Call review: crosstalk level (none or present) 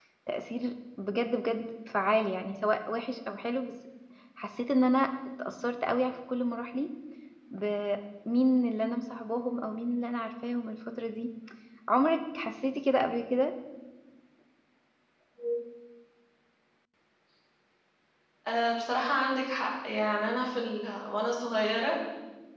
none